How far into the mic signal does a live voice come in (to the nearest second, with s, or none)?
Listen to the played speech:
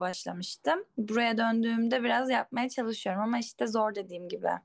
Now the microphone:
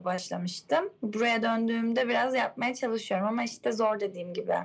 none